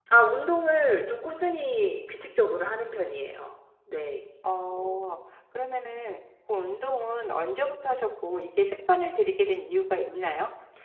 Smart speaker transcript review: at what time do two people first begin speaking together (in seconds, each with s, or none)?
none